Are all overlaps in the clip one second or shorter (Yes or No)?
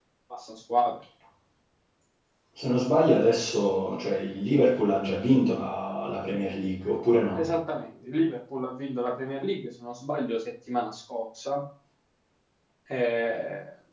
Yes